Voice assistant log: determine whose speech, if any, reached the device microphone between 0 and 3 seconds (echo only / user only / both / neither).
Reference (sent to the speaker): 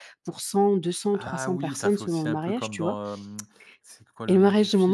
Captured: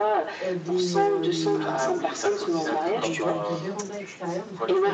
both